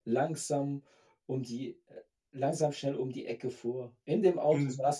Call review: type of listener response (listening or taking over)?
listening